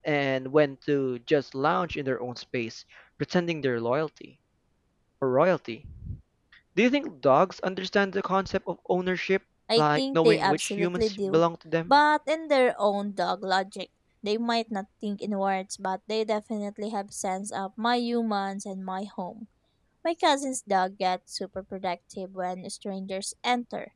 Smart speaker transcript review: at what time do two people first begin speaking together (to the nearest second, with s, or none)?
10 s